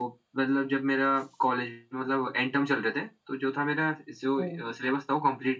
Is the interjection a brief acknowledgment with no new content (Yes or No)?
Yes